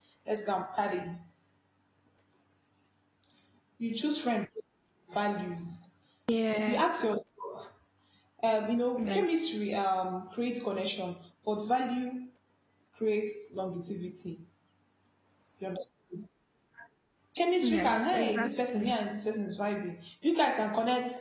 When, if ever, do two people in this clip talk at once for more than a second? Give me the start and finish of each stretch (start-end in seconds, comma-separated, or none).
17.6-18.9